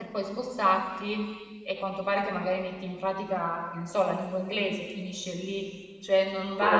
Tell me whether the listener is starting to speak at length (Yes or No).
No